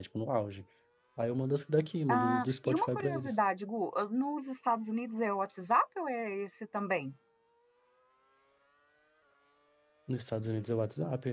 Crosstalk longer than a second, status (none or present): present